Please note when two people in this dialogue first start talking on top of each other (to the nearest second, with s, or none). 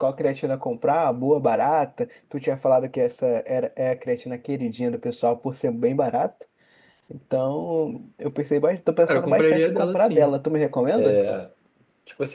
9 s